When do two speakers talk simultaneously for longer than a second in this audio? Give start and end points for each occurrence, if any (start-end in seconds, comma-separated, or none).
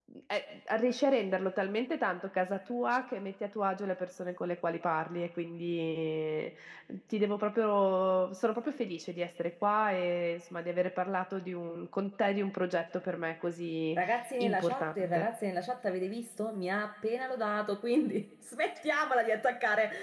13.9-15.3